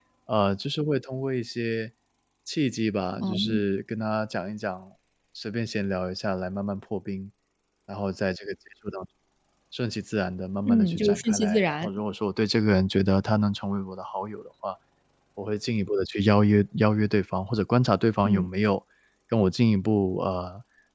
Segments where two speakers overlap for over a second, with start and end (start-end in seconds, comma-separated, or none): 10.7-11.9